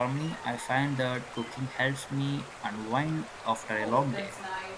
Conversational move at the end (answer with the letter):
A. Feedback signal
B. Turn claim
B